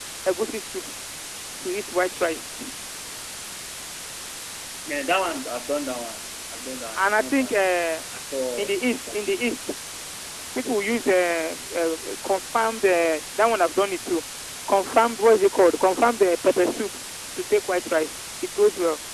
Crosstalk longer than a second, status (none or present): none